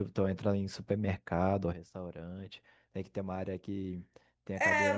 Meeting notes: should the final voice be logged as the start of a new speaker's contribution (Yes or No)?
Yes